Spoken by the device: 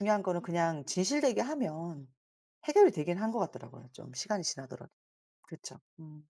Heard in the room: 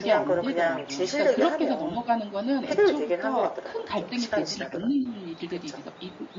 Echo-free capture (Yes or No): No